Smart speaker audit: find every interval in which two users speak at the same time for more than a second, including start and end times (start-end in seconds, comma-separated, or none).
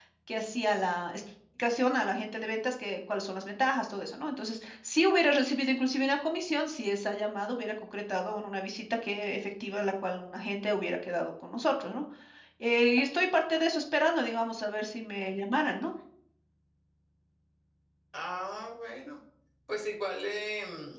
none